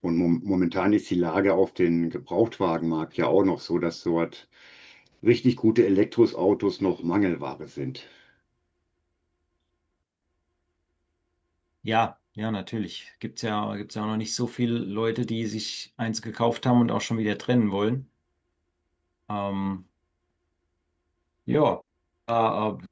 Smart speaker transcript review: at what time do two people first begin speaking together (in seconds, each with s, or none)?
none